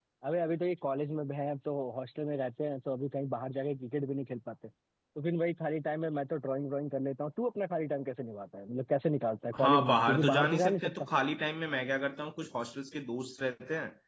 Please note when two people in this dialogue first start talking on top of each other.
9.5 s

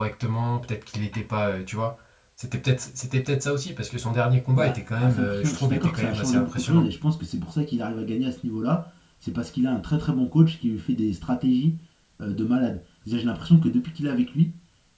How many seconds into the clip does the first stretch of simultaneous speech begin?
4.5 s

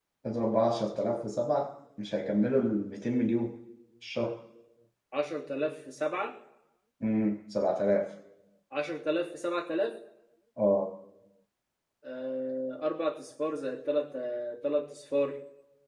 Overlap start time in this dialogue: none

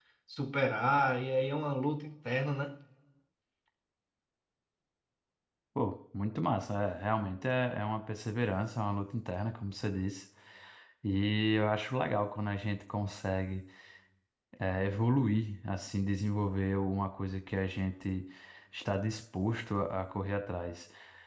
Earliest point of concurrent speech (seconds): none

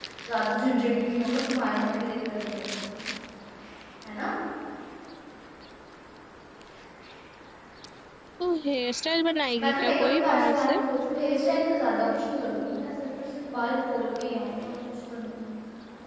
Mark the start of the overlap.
9.6 s

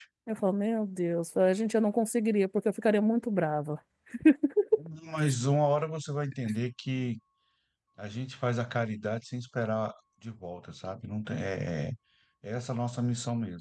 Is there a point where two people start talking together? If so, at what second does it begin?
none

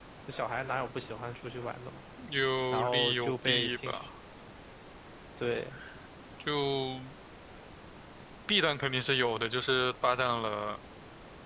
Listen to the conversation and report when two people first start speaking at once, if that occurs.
2.7 s

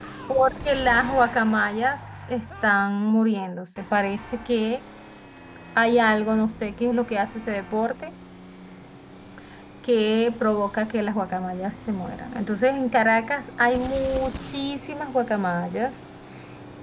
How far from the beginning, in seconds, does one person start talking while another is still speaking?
none

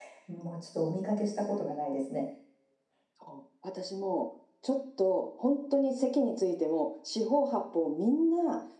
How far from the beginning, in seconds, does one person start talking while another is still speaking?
none

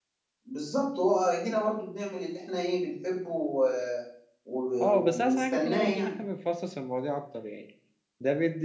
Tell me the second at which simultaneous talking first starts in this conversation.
4.8 s

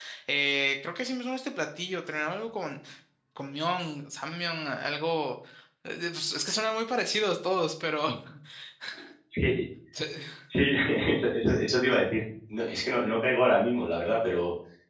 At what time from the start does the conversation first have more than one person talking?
none

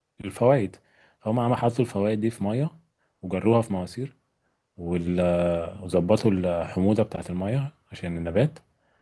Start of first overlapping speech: none

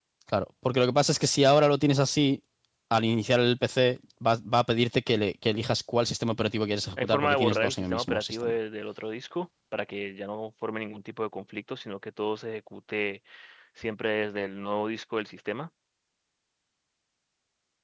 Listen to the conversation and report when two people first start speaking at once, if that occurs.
7.0 s

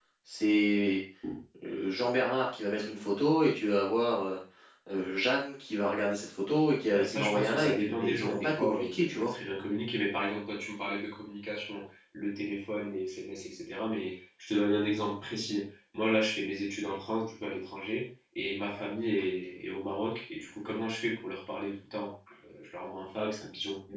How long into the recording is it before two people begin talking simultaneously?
6.9 s

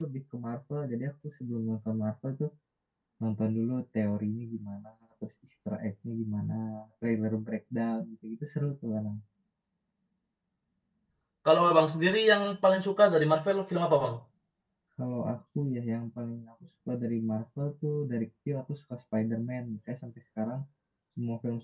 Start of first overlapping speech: none

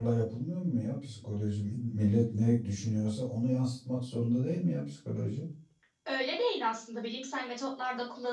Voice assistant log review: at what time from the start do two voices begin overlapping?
none

